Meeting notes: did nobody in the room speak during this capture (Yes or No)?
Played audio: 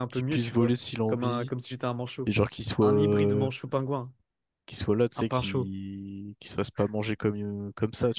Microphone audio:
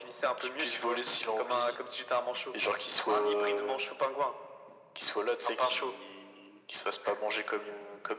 Yes